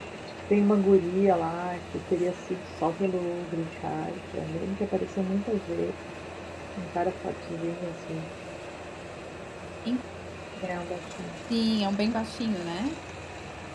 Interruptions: none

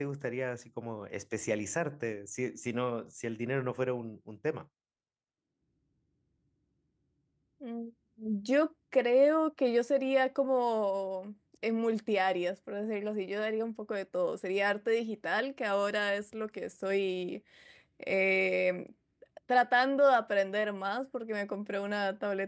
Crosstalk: none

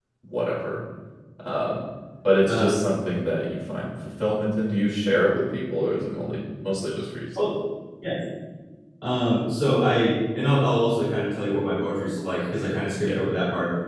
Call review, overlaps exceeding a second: none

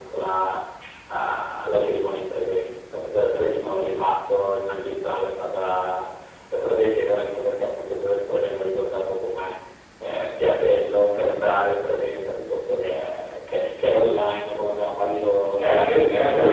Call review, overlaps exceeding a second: present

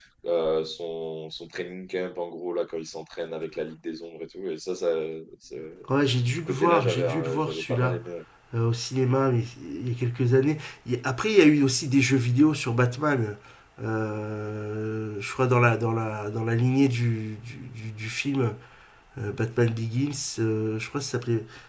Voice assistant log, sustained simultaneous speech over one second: present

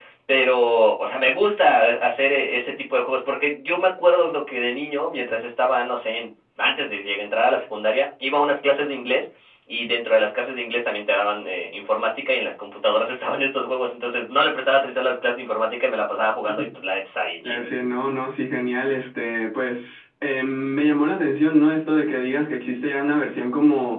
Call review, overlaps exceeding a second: none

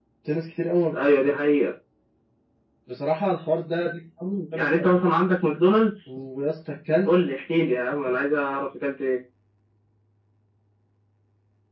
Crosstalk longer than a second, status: none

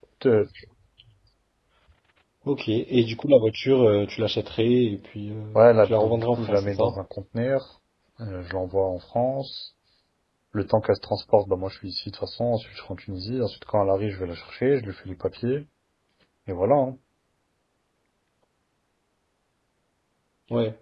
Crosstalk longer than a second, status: present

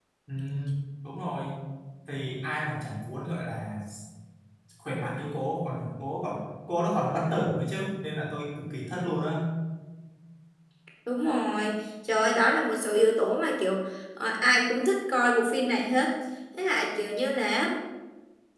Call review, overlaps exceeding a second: none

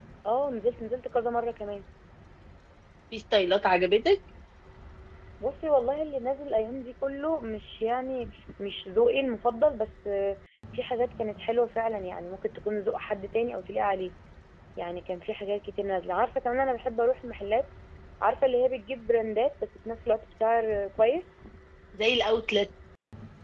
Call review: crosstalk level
none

